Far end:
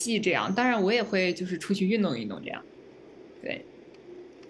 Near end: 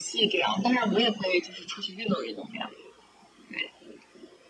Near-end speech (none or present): none